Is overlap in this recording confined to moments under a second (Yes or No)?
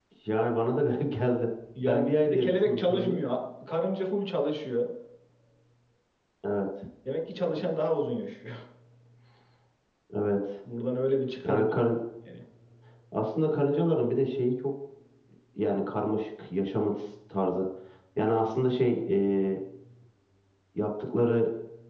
No